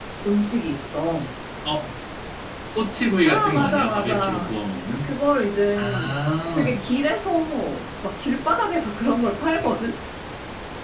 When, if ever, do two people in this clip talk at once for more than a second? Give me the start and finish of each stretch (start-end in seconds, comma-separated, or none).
3.2-4.5